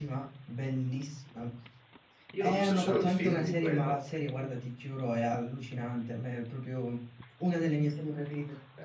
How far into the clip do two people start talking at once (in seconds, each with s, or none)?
2.4 s